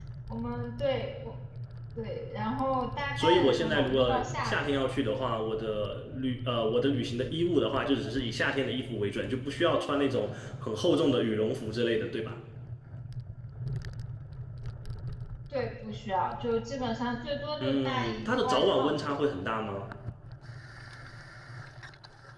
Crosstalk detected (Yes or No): Yes